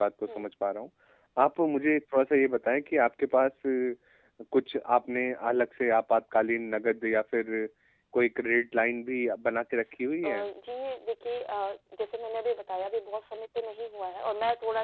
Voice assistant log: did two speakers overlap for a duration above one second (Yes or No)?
No